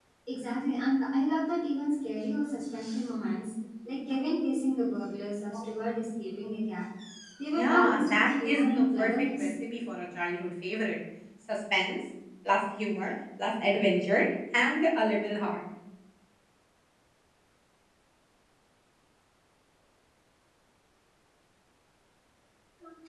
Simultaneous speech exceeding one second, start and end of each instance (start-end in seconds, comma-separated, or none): 7.5-9.5